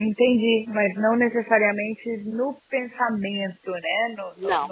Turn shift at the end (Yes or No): Yes